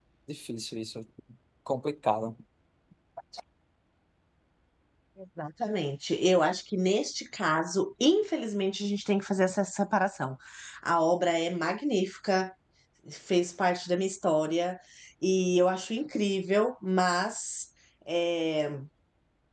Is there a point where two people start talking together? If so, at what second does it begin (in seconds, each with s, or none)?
none